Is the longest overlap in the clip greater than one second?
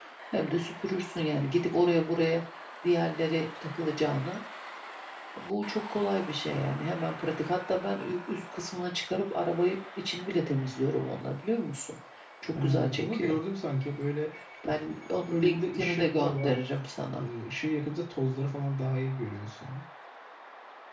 Yes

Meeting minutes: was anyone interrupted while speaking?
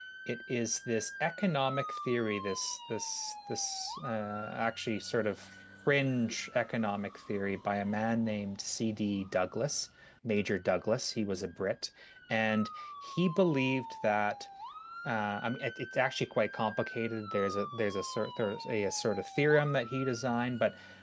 No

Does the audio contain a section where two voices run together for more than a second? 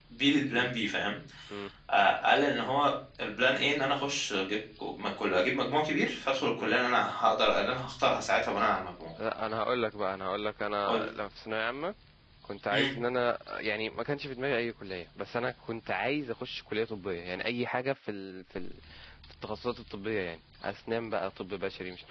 No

